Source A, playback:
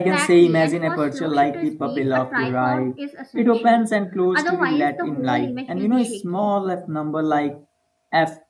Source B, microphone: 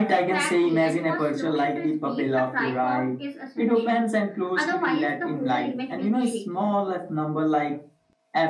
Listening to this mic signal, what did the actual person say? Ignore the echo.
none

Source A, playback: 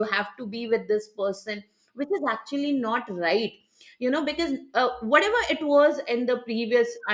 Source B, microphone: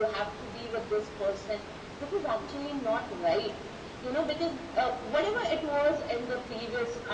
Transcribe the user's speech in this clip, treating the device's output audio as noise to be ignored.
none

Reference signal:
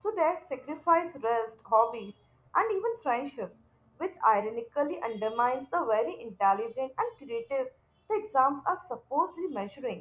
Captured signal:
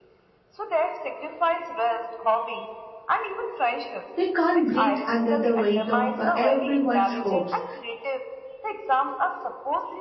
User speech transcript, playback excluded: they can't breathe under the weight of uh, everyone's hopes.

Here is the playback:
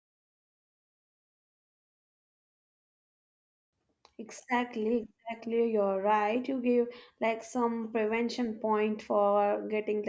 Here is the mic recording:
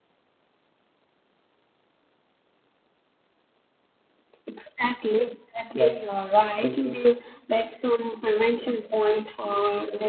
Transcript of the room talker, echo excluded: yeah thank you

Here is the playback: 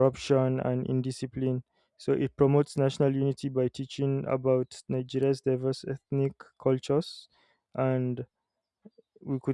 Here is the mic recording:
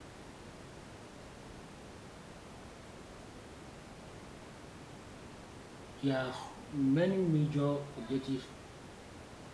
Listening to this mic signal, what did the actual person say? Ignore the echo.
there are many major objectives

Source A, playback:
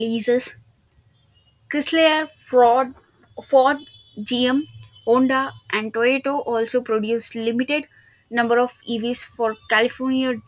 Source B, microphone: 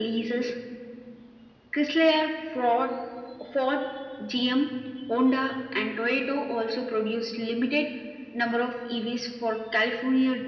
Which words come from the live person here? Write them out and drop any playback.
none

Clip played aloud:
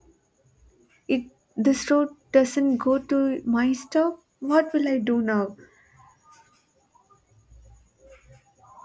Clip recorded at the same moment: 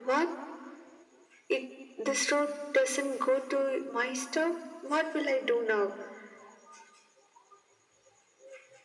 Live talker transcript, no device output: none

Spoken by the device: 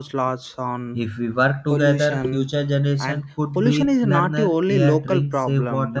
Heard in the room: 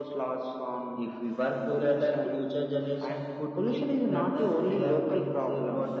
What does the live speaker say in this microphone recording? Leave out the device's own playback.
none

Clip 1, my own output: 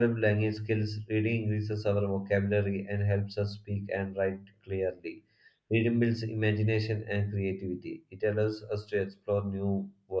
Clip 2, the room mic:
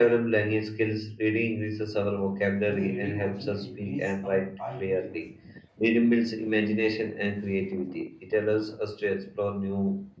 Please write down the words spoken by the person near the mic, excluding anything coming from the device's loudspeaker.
Because reading also, you know, increase our IQ level.

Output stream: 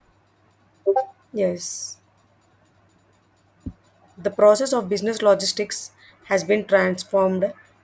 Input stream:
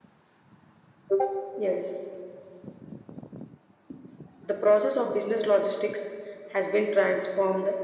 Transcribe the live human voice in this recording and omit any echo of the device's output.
none

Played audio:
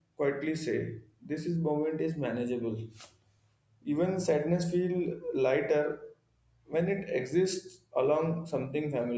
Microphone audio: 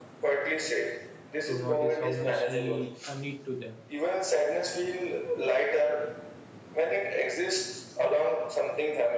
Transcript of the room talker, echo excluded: to notice how much we uh, need to them

